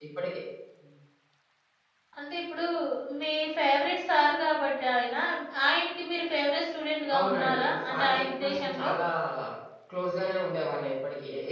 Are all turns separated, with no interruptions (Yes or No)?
No